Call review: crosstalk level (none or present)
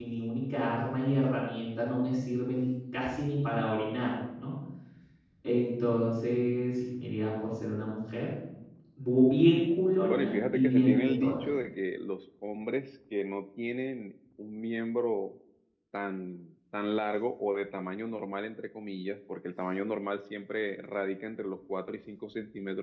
present